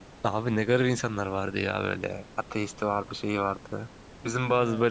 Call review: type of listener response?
listening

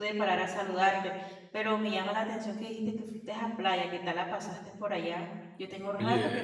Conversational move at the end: taking over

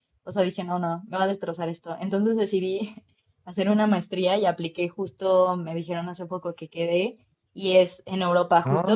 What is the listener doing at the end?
listening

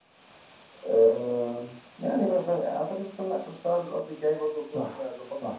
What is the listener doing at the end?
taking over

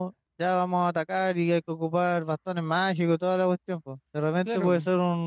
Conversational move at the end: listening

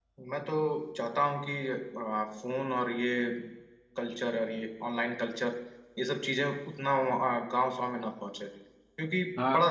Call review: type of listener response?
listening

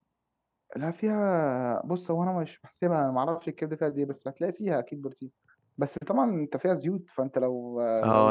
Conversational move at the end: taking over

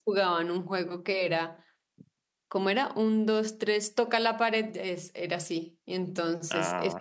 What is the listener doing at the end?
listening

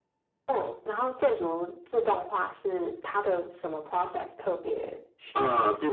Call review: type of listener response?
taking over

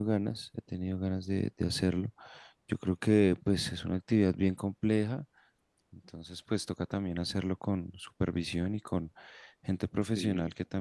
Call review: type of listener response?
listening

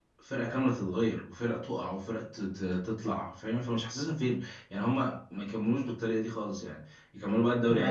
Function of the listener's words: taking over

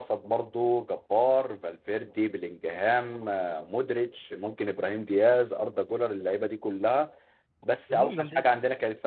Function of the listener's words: listening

